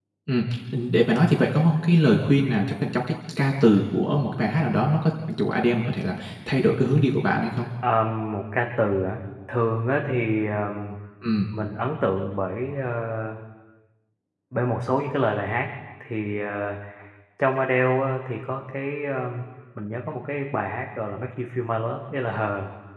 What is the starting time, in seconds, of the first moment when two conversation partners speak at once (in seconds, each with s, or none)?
none